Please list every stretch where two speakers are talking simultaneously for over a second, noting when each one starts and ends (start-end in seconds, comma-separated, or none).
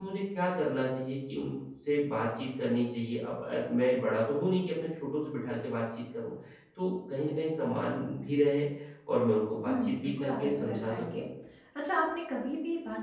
9.6-11.2